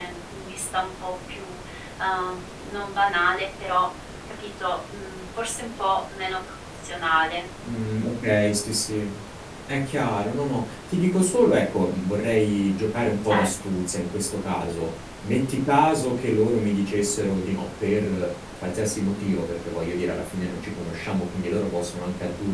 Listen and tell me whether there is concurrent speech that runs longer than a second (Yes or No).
No